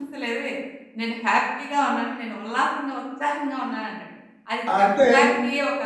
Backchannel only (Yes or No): Yes